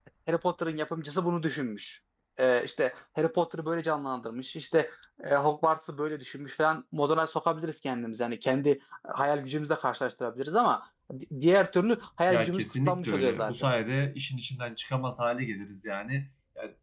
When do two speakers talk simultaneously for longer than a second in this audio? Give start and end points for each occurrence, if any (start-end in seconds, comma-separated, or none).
12.3-13.7